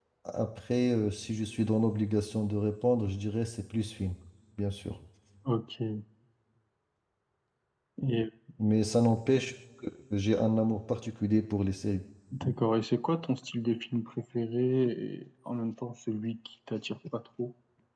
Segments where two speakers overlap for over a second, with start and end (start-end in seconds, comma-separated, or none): none